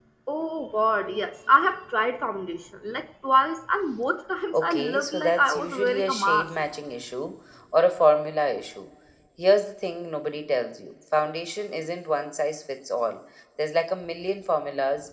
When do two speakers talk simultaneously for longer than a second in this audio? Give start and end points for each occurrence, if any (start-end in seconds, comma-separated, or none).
4.5-6.5